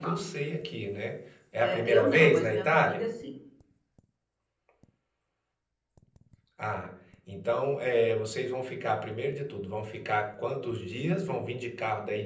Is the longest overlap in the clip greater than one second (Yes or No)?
Yes